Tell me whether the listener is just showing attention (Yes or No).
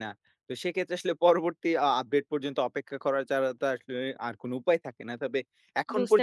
No